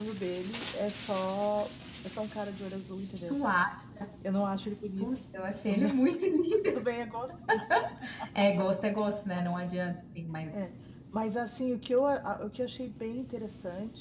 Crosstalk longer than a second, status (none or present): none